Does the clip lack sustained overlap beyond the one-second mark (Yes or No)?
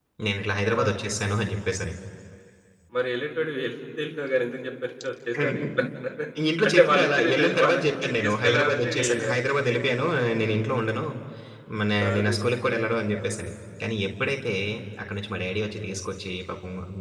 No